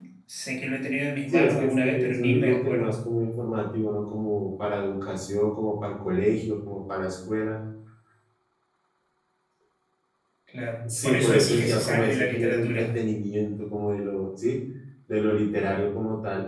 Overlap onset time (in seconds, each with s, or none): 1.3 s